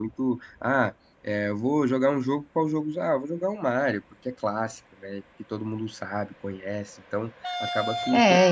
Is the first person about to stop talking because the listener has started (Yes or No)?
Yes